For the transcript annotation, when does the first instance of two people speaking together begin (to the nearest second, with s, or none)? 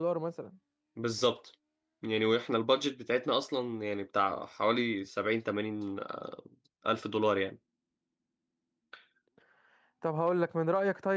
none